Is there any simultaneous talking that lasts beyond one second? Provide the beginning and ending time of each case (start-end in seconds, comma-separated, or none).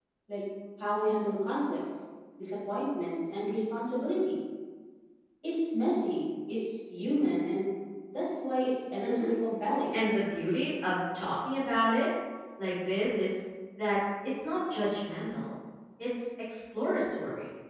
none